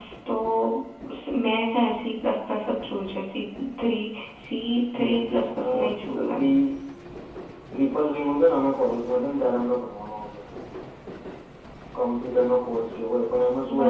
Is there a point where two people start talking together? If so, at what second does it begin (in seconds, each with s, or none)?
4.9 s